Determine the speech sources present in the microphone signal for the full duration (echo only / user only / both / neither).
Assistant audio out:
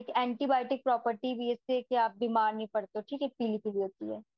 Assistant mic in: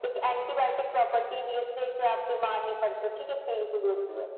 echo only